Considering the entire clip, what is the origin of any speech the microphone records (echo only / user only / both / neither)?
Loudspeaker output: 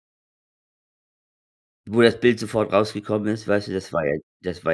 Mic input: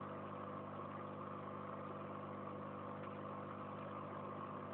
neither